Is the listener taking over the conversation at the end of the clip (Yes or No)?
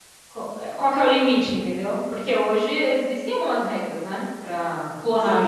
Yes